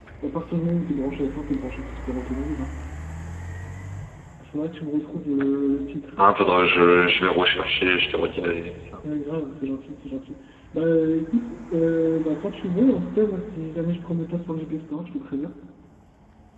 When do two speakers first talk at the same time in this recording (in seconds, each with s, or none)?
none